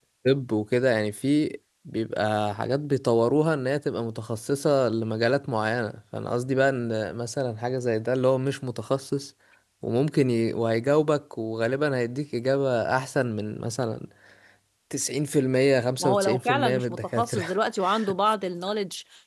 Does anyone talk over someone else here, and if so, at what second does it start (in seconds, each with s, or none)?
16.0 s